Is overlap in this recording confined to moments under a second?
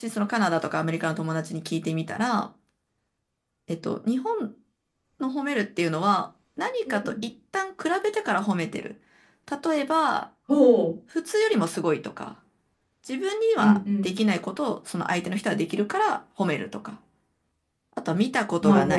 Yes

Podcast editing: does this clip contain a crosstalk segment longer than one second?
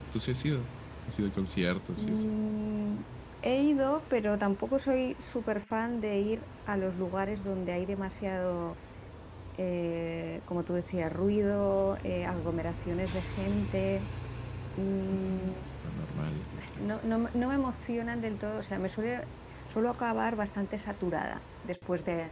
No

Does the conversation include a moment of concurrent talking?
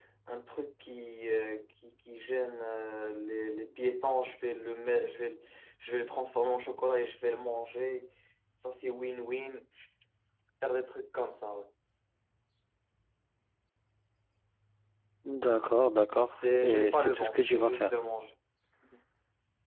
Yes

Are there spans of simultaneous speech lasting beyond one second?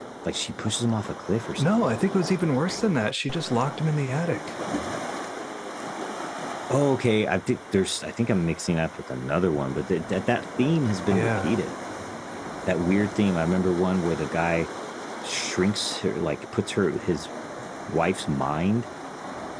No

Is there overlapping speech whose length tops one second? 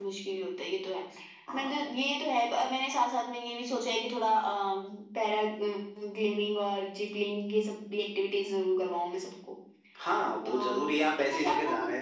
Yes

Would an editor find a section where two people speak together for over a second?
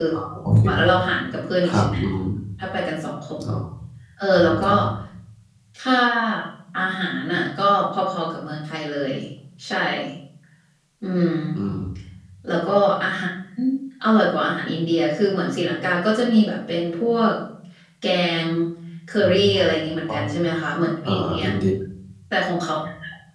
No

